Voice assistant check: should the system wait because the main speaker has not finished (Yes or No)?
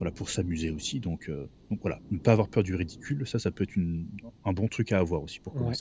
No